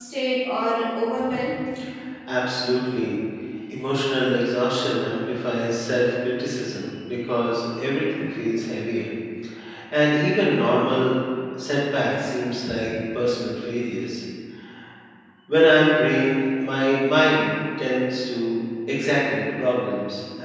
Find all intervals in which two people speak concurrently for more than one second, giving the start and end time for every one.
none

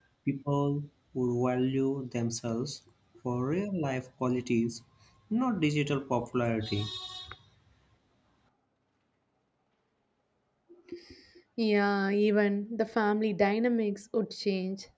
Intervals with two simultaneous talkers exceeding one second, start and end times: none

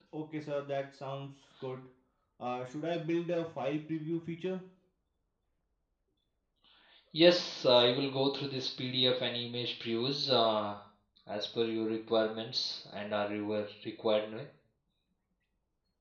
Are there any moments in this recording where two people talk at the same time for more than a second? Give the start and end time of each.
none

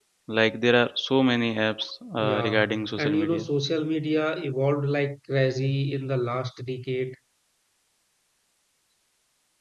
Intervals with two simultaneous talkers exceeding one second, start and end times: 2.2-3.5

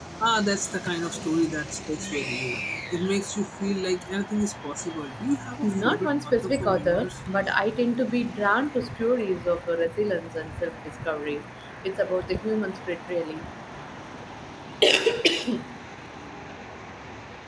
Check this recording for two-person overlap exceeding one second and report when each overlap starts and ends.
5.6-7.2

